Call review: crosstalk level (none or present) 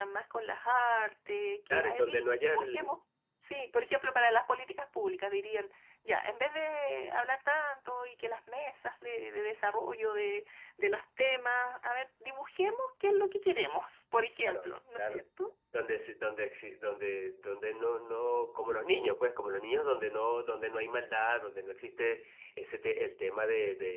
present